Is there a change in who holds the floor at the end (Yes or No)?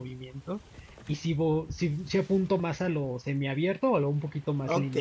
Yes